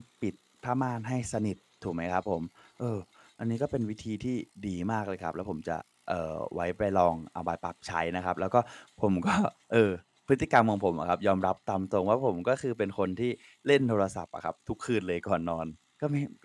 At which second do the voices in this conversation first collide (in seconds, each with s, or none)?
none